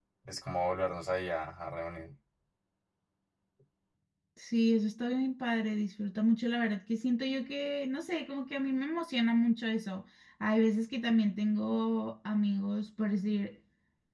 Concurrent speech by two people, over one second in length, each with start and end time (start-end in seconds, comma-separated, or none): none